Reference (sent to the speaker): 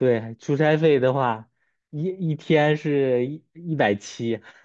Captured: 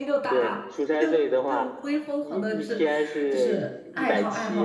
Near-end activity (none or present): present